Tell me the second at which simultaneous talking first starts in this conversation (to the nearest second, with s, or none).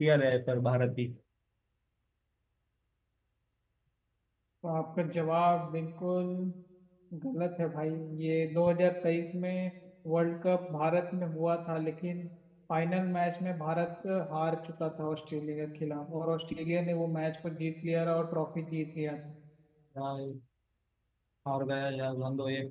none